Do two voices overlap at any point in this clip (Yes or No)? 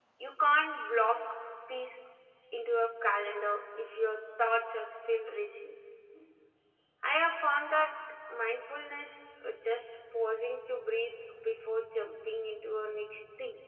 No